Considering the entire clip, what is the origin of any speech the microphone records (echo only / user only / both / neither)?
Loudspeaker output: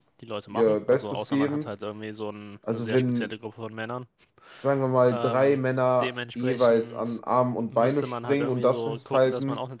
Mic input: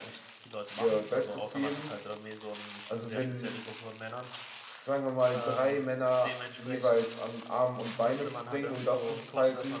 echo only